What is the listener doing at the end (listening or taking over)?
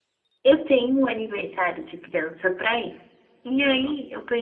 listening